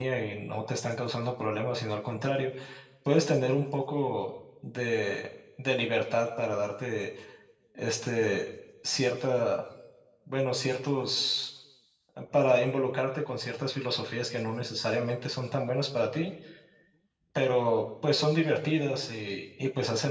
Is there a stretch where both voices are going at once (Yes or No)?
No